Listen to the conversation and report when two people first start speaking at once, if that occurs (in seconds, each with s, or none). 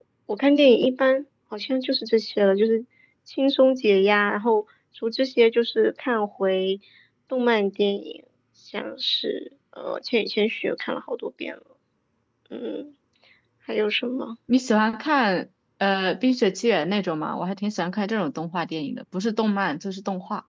none